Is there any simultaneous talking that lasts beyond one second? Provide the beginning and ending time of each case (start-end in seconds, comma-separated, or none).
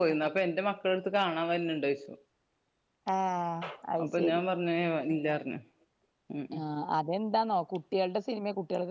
none